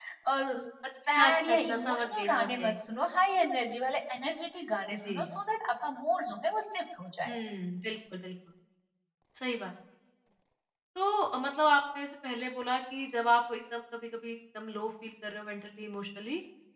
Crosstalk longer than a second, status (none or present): present